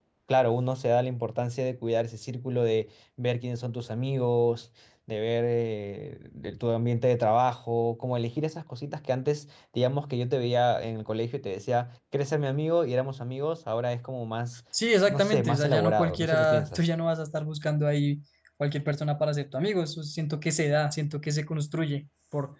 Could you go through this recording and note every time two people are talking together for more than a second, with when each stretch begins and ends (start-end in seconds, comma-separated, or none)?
15.1-16.8